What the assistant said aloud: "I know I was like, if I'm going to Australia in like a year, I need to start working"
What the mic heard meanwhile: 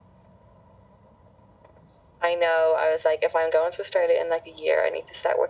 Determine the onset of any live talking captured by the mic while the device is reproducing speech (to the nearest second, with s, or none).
none